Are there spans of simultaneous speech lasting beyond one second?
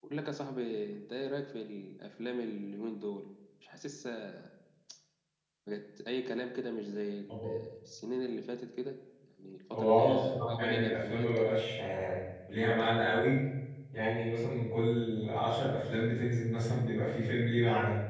Yes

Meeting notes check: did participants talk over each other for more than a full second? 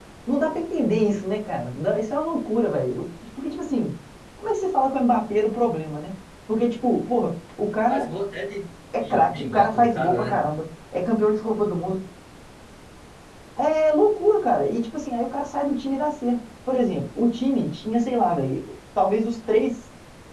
Yes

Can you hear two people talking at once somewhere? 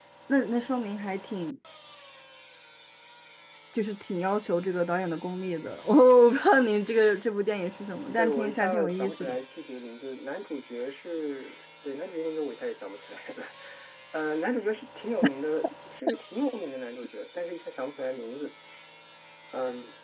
Yes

